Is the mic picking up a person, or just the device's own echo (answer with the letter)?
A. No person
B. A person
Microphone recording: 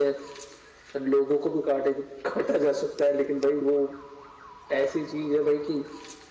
A